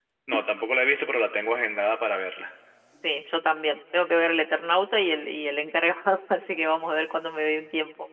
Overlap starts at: none

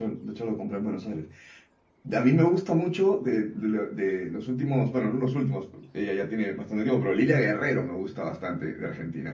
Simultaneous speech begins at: none

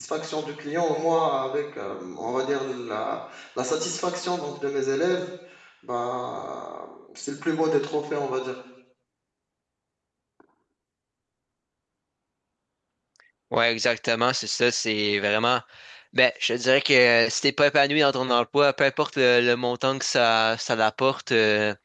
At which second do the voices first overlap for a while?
none

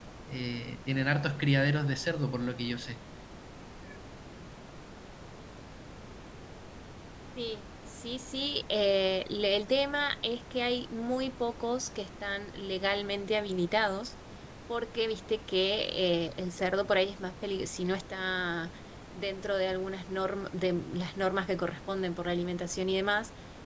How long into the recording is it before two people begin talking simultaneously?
none

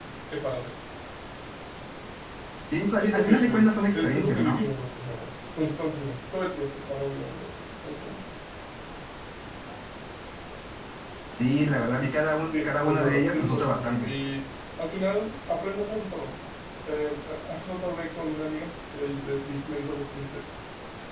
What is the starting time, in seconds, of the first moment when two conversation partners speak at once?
3.0 s

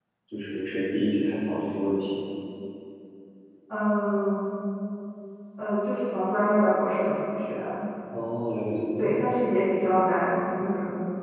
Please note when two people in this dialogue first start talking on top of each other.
none

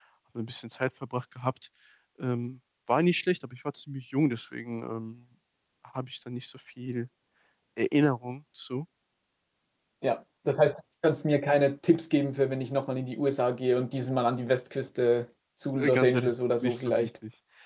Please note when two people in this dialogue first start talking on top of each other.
15.8 s

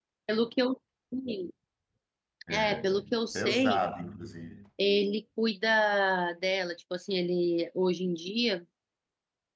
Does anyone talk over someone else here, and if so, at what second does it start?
2.5 s

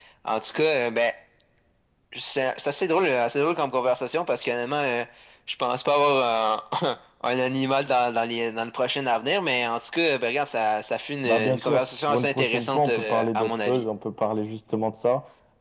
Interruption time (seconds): 11.2 s

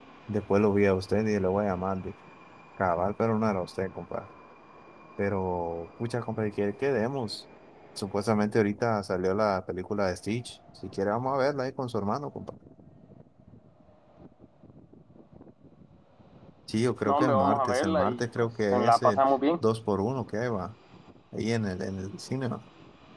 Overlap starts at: 17.1 s

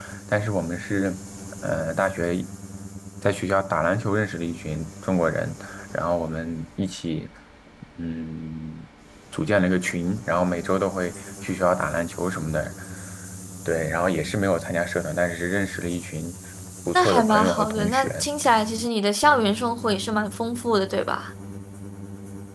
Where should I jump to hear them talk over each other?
16.9 s

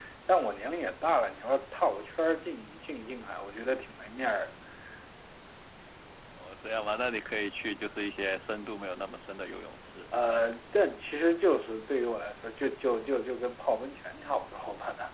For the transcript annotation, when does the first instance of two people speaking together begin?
none

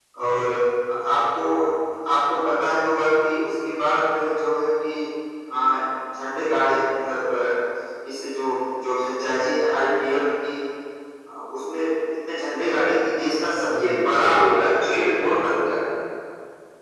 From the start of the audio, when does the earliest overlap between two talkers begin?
13.7 s

